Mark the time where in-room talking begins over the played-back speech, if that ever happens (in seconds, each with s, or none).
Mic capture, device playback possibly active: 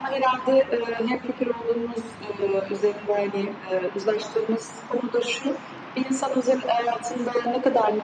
none